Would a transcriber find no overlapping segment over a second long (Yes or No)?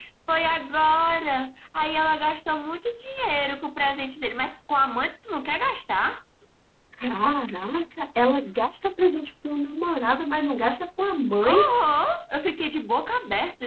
Yes